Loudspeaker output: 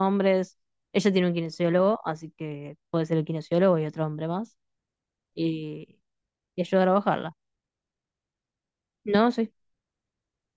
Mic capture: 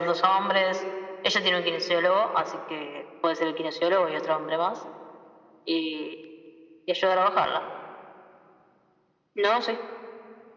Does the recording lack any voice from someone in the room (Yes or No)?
Yes